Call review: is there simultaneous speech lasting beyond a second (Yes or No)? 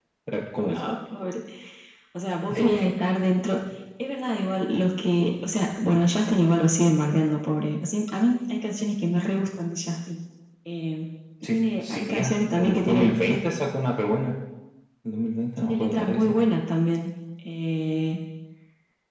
Yes